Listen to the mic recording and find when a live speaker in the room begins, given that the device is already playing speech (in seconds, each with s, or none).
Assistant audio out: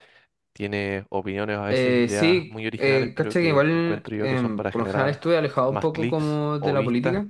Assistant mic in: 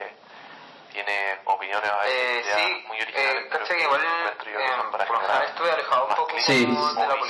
6.4 s